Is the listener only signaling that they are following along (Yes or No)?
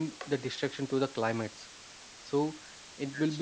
Yes